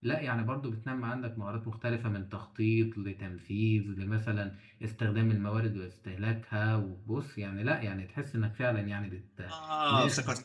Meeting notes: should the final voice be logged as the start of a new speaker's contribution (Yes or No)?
Yes